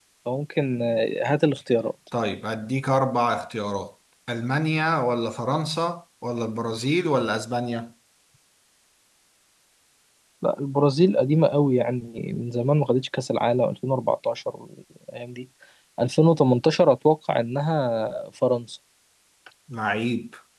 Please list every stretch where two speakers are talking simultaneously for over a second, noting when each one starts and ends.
none

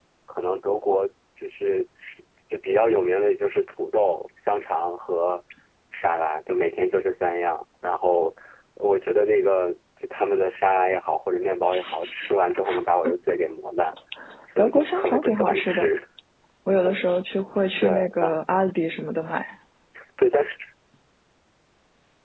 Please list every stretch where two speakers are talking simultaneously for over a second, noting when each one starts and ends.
14.6-15.9

